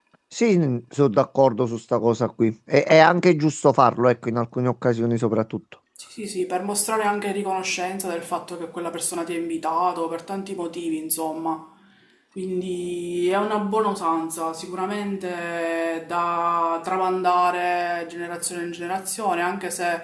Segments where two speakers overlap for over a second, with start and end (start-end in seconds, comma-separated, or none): none